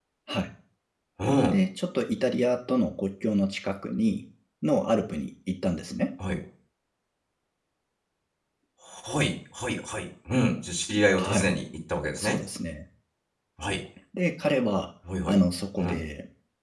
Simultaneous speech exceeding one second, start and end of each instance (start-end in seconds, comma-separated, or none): none